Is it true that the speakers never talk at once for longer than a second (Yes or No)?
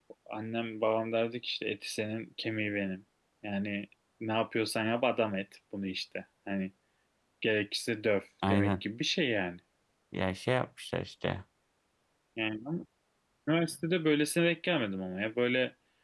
Yes